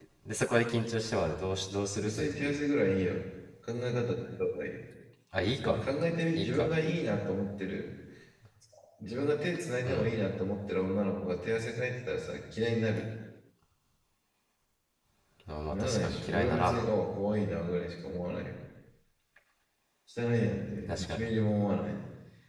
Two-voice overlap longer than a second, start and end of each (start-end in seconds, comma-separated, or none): 15.7-16.9